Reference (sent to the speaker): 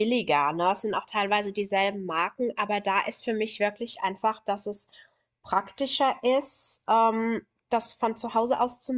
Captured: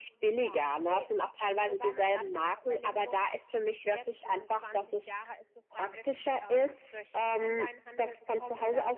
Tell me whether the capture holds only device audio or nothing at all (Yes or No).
No